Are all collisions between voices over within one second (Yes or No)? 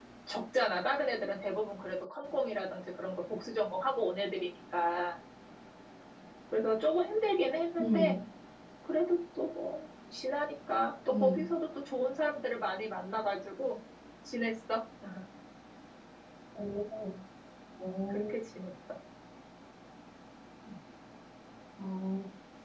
Yes